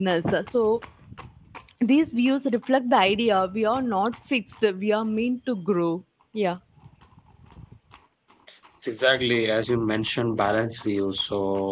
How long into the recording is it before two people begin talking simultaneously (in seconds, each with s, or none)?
none